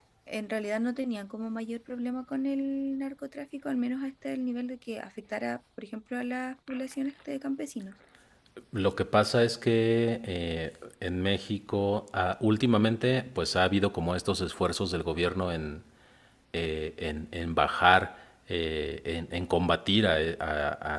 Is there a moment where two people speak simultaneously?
No

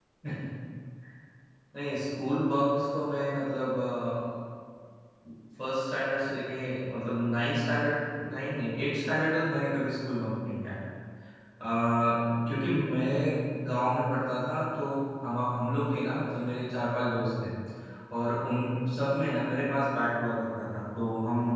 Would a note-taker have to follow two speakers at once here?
No

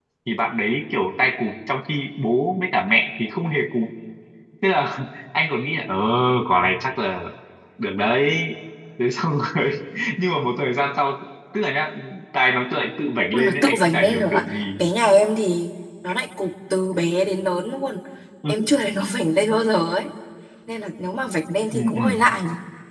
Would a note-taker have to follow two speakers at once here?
Yes, from 13.3 s

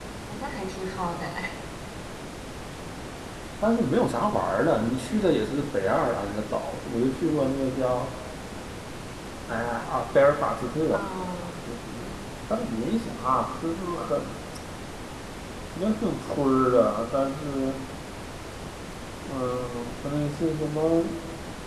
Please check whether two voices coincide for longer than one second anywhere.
No

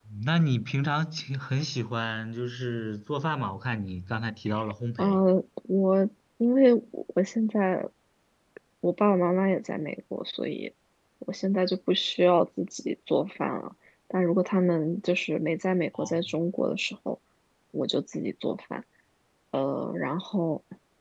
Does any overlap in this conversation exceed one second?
No

